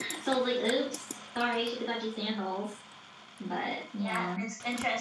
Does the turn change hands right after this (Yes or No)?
Yes